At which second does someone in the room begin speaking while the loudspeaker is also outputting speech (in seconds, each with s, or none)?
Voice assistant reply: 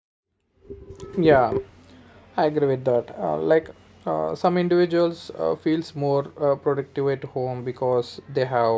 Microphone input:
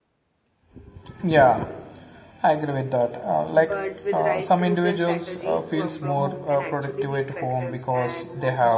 3.5 s